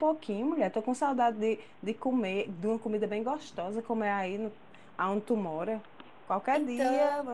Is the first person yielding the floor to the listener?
No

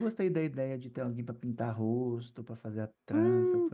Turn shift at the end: Yes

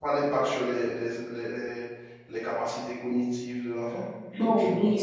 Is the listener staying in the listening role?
No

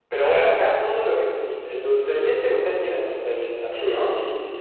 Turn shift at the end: Yes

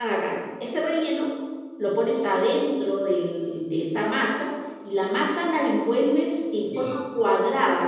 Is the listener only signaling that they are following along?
Yes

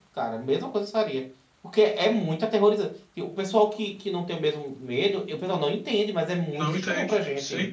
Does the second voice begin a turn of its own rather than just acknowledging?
Yes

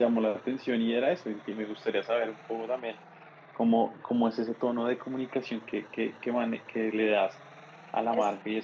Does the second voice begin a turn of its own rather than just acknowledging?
No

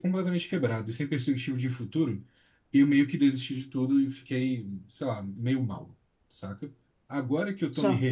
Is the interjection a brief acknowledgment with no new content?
Yes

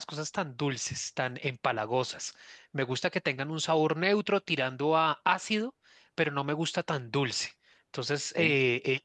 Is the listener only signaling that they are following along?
Yes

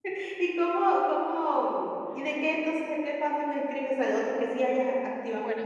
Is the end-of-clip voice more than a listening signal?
Yes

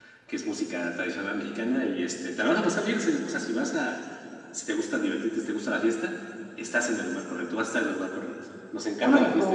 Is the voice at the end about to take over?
Yes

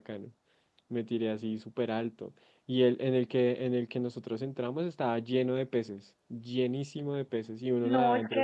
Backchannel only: No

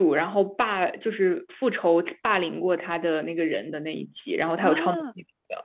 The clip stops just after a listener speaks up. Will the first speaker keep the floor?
No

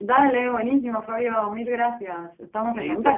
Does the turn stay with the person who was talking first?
No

